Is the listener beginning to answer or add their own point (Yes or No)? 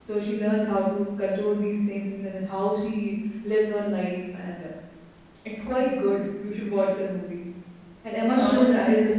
No